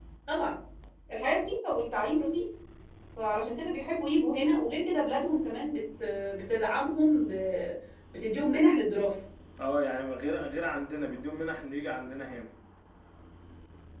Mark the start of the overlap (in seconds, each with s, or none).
none